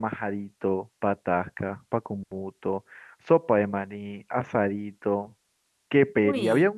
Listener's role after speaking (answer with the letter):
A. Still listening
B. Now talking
A